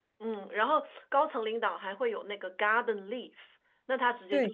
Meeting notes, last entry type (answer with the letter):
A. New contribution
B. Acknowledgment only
B